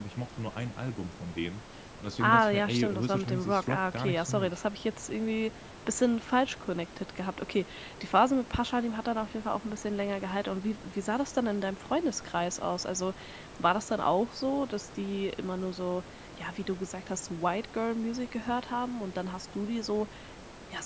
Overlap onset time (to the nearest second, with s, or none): 2 s